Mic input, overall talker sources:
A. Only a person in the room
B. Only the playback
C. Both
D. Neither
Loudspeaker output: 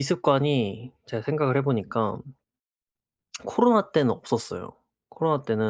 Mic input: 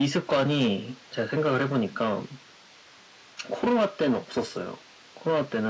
B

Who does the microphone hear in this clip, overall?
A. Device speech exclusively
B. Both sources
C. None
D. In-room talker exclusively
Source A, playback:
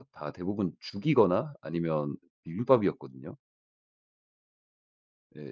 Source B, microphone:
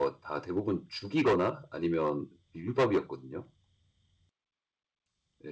A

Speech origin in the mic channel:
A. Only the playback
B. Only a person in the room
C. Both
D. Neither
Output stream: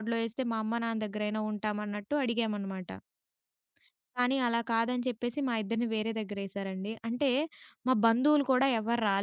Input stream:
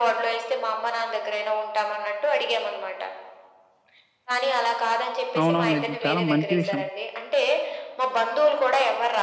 C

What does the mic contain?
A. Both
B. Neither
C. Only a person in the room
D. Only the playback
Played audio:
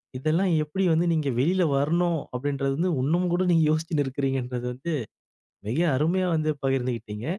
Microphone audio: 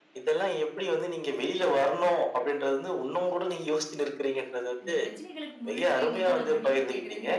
A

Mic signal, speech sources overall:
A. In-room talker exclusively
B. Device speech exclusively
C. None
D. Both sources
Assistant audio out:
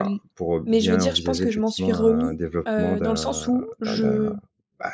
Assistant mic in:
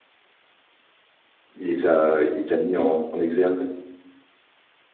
A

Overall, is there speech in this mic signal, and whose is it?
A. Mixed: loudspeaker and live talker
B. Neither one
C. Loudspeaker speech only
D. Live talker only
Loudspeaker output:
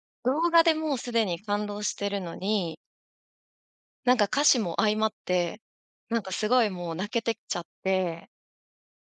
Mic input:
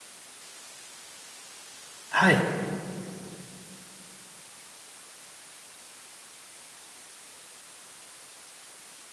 D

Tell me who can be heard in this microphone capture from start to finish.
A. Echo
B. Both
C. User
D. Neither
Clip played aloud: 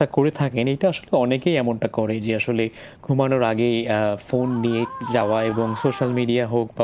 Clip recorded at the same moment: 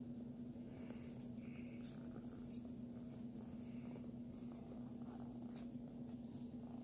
D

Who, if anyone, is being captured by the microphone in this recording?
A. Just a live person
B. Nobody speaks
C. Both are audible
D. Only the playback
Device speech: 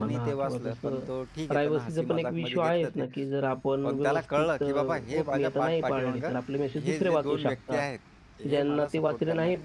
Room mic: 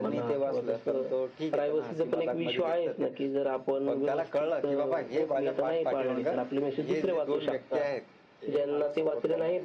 D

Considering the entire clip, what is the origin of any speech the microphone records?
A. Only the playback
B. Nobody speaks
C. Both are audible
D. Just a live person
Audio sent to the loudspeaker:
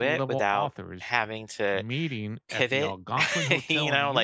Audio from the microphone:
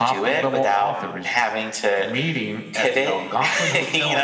A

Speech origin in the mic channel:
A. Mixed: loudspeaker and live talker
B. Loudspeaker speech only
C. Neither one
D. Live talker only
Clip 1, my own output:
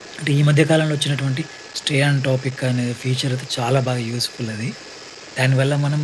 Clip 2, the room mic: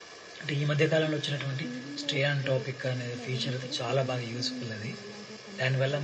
A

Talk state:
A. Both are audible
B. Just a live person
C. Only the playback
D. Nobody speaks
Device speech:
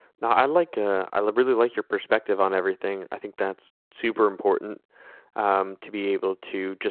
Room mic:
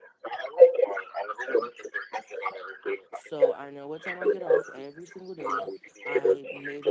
A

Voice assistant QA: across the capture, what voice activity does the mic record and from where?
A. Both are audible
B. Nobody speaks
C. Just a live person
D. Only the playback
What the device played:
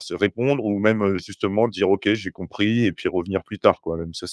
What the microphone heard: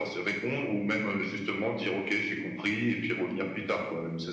D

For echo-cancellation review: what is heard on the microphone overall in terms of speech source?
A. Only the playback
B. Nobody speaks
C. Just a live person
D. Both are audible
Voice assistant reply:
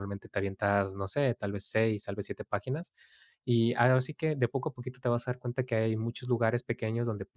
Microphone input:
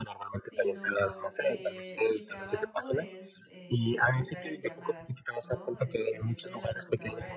D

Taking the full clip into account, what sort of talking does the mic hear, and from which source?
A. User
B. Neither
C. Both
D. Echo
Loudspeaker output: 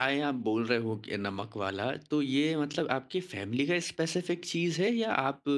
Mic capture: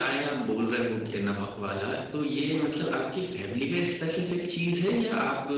D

